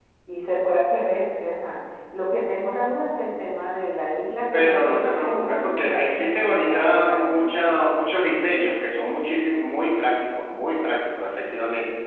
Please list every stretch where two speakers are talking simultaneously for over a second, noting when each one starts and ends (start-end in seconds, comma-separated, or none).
4.5-7.7